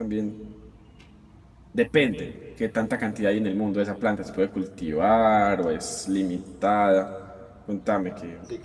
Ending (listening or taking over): taking over